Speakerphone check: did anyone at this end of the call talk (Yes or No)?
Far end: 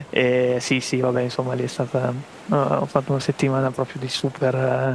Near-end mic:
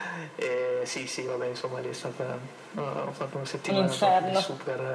Yes